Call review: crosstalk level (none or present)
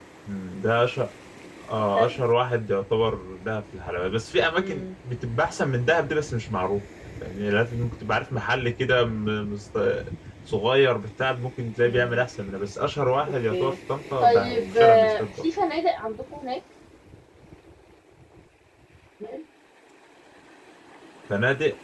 present